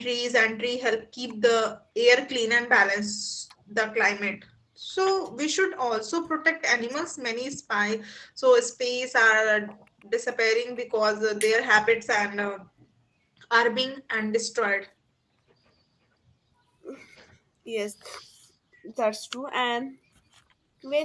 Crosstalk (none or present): none